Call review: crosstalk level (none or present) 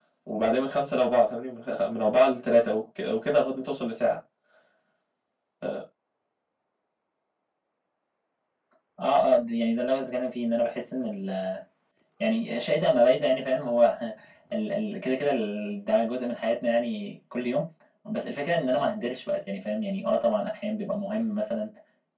none